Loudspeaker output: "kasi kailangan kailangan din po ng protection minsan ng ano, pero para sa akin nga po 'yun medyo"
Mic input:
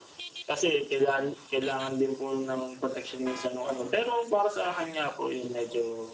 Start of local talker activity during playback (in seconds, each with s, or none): 3.6 s